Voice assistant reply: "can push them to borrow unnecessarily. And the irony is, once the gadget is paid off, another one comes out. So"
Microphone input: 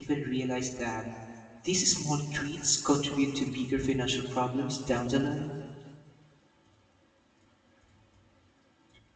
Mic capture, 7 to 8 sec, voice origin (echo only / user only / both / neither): neither